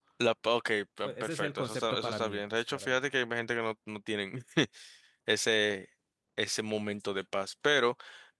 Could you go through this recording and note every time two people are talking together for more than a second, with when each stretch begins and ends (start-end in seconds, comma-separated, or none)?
1.0-3.0